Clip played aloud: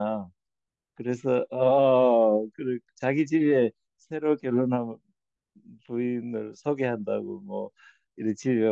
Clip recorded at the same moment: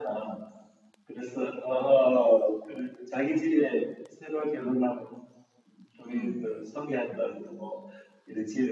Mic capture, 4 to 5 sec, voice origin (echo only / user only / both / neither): echo only